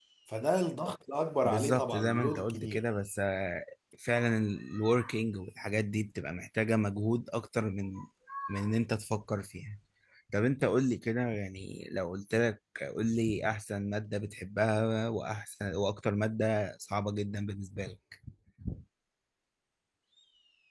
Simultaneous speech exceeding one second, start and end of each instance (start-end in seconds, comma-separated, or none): 1.4-2.8